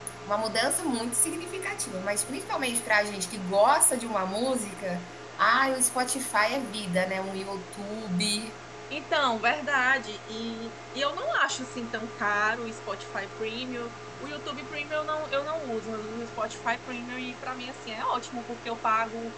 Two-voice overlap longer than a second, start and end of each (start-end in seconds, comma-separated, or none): none